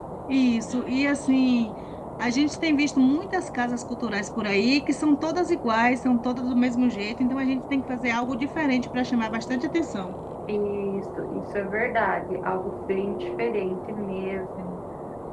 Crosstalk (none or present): none